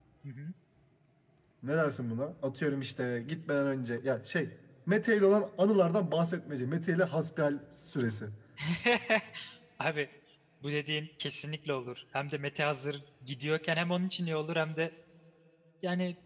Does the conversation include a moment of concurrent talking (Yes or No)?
No